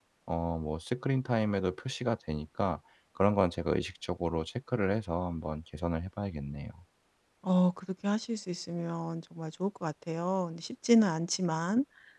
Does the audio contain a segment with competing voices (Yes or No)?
No